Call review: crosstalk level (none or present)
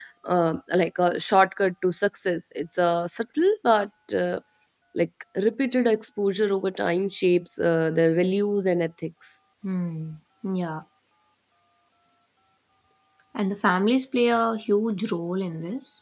none